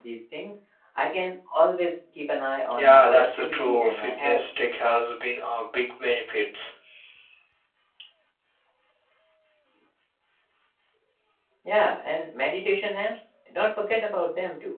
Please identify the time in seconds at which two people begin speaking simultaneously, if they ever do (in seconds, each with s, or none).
2.7 s